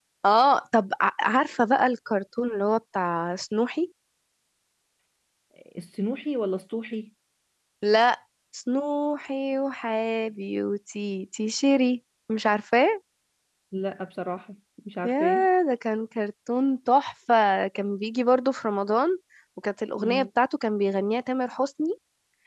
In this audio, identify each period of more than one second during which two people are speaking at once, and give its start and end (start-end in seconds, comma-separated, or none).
none